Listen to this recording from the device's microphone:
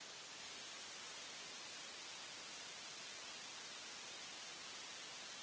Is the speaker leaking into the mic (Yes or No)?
No